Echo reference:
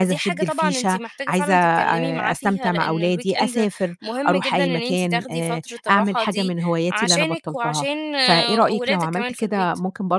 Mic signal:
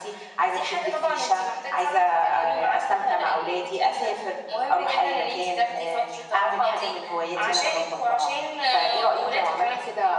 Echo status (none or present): present